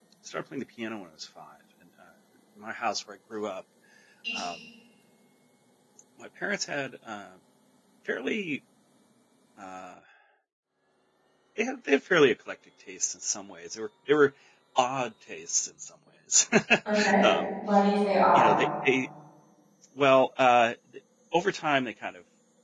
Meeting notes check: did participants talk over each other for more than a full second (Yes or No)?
No